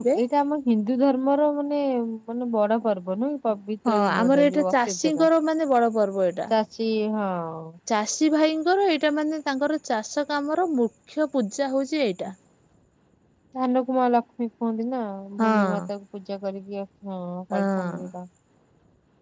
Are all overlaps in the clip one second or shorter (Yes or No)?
No